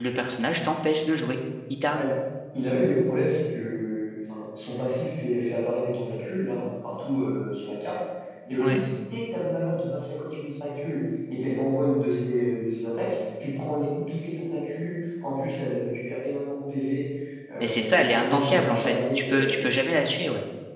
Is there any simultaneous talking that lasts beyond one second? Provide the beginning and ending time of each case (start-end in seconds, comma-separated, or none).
17.6-19.5